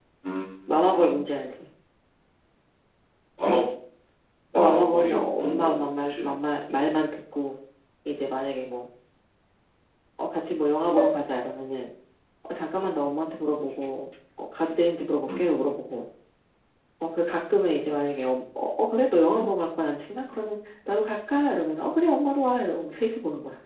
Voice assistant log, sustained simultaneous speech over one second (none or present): present